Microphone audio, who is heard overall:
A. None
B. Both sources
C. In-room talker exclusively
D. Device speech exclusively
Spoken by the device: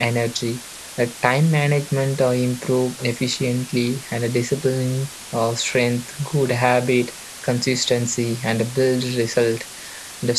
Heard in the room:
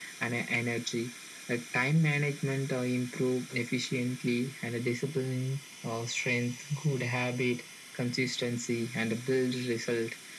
D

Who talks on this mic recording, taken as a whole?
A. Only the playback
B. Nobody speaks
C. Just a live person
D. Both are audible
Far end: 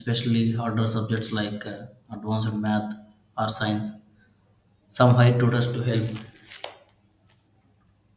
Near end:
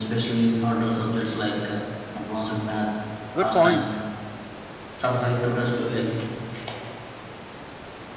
D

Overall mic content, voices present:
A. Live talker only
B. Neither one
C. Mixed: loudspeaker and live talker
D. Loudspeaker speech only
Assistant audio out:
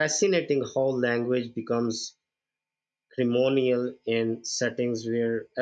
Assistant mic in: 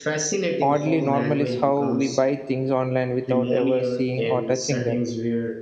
C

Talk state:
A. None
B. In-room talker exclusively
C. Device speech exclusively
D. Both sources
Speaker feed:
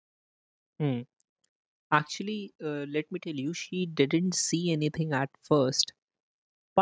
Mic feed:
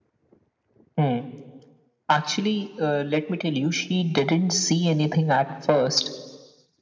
C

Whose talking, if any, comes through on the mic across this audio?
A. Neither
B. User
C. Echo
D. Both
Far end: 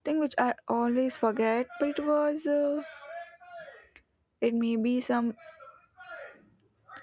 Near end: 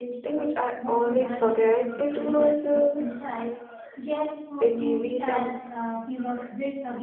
D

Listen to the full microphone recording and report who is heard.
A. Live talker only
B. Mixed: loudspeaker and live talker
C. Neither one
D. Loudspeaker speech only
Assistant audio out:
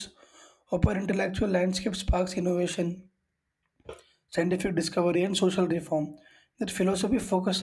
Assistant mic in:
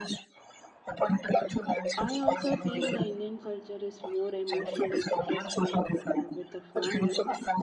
B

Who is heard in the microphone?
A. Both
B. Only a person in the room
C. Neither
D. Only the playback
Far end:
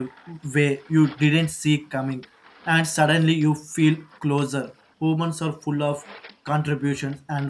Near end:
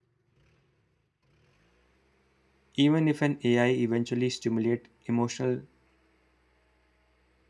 B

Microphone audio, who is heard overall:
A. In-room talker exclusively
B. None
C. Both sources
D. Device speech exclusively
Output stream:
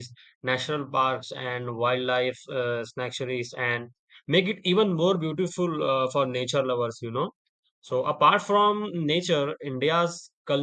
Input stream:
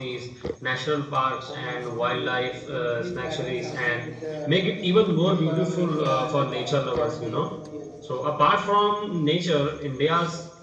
C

